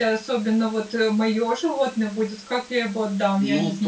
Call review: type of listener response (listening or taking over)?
taking over